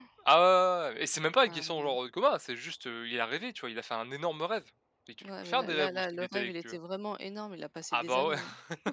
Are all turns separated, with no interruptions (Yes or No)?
No